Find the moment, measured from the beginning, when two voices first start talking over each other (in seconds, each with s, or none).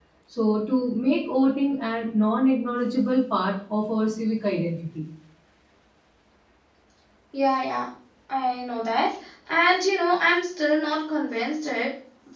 none